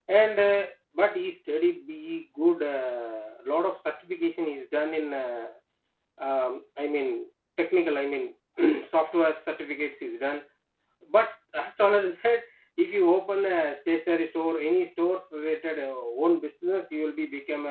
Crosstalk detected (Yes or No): No